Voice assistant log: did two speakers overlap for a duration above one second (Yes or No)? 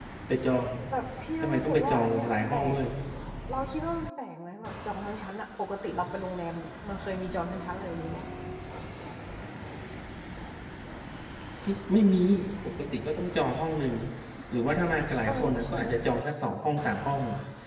Yes